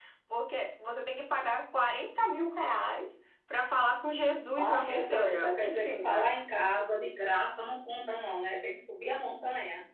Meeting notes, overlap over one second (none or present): present